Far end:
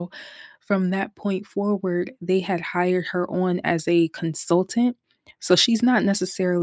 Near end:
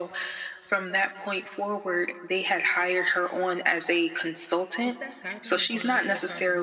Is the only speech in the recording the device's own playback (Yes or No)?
No